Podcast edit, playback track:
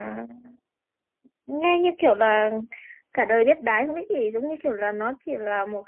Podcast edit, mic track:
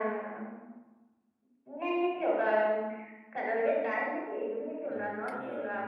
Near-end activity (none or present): present